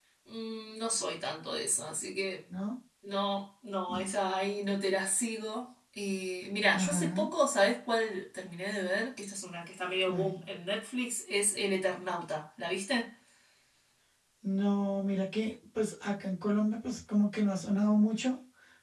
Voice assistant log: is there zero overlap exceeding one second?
Yes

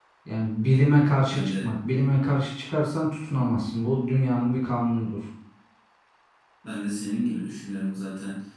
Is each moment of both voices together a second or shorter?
Yes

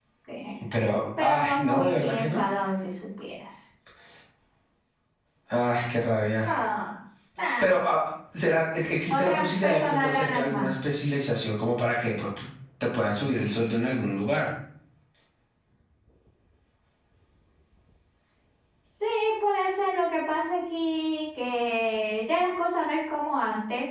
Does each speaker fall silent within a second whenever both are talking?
No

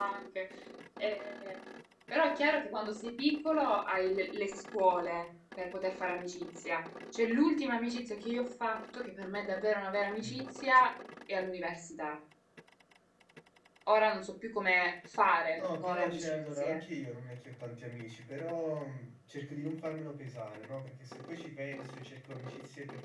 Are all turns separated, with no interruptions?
No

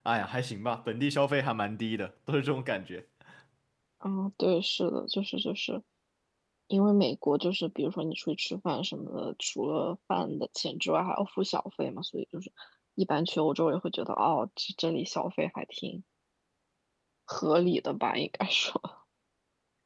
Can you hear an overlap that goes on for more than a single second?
No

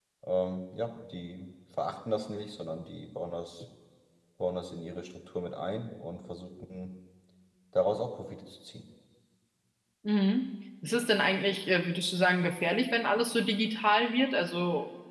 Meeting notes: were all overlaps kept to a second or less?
Yes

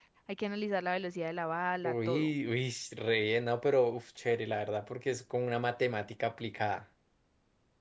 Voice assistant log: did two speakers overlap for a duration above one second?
No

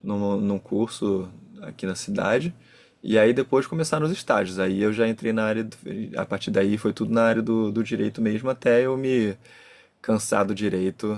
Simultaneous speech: No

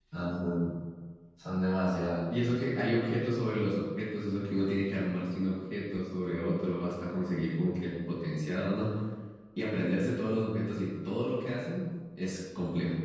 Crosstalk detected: No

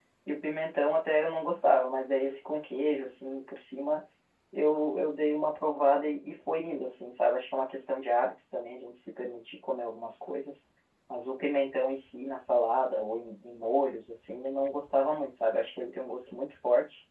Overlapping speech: No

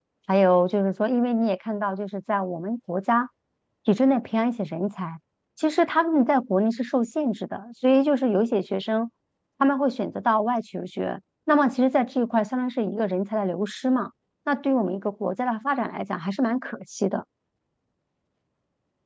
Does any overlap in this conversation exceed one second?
No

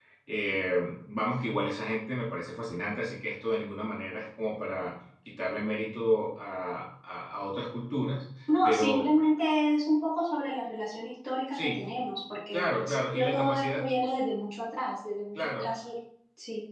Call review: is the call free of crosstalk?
No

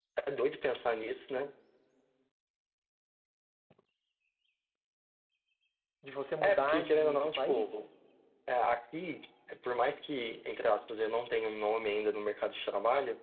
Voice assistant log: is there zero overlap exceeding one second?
No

